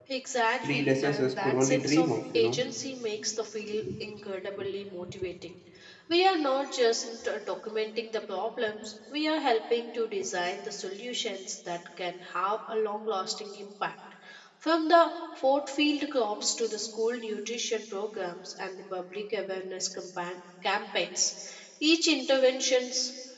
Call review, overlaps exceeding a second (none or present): present